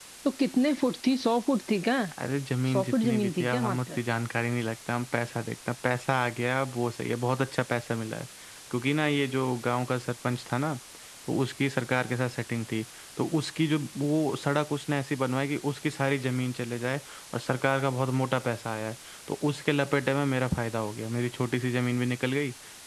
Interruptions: present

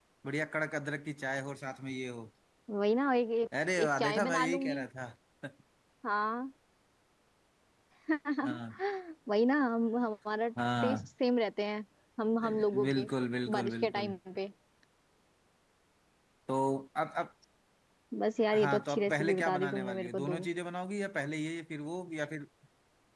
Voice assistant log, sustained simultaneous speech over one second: present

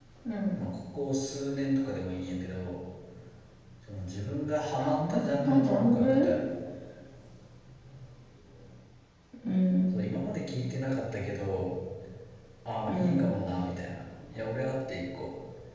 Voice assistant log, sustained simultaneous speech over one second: present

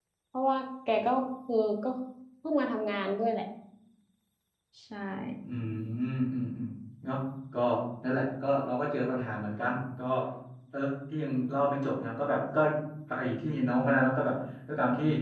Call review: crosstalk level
none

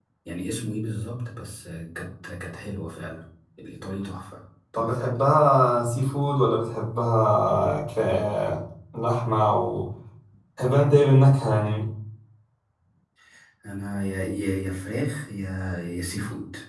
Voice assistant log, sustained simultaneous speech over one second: none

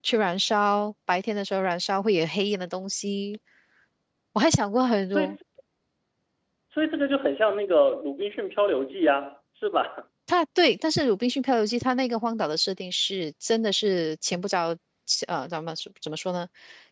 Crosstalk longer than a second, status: none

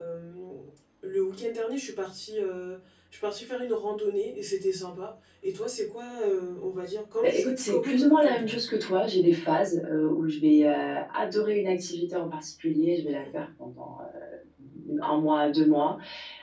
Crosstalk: present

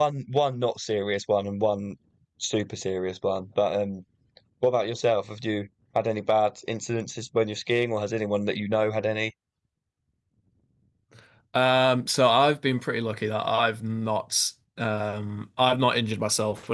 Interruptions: none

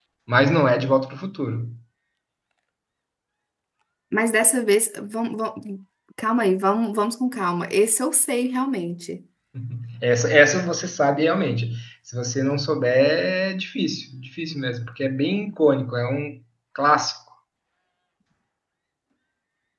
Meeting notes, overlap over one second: none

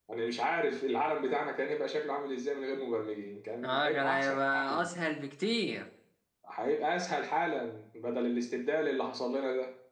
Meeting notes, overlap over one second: present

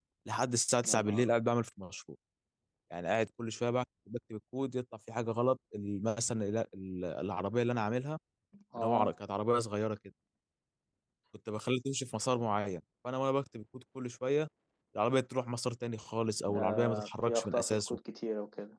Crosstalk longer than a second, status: present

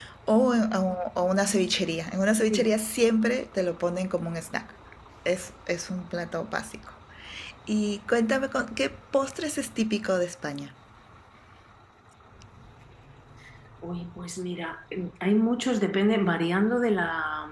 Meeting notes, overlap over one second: none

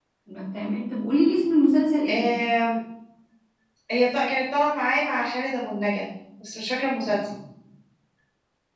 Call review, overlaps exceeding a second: none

